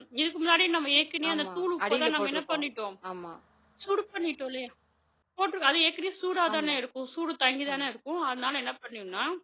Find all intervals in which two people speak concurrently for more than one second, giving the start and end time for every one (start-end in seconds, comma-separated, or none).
1.3-2.7